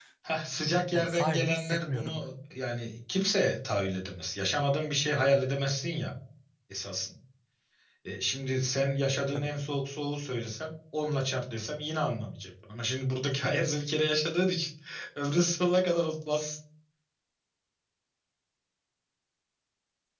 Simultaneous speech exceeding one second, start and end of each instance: 0.9-2.3

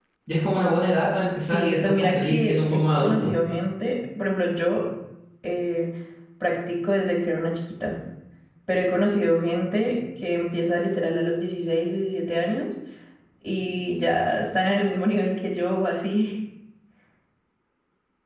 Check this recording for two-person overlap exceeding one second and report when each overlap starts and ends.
1.4-3.3

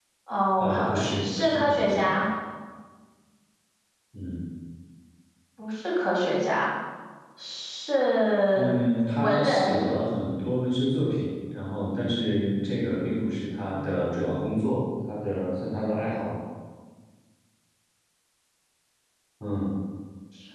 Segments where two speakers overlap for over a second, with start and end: 0.6-2.1

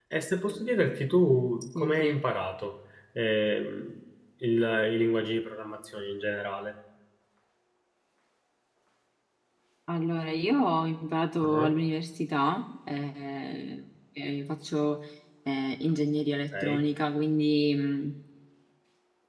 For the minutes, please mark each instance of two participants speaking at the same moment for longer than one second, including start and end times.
none

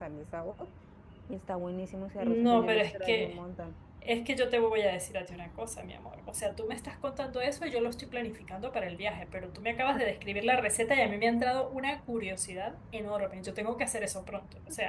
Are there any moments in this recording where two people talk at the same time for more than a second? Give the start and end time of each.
2.2-3.4

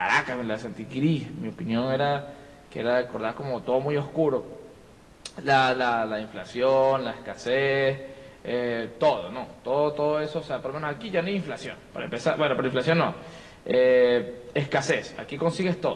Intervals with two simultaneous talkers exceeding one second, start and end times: none

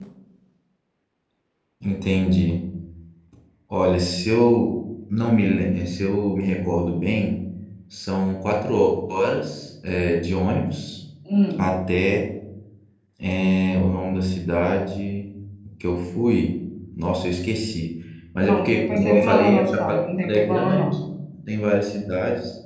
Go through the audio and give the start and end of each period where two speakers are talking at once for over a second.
18.4-20.9

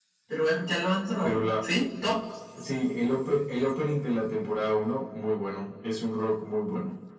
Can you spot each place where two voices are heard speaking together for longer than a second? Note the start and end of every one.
none

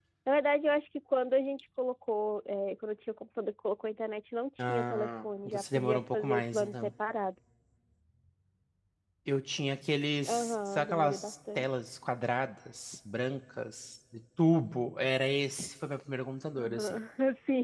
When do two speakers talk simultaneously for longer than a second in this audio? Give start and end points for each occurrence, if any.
4.6-6.9, 10.3-11.7

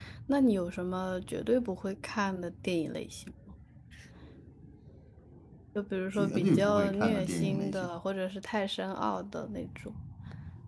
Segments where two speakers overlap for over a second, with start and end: 6.2-7.9

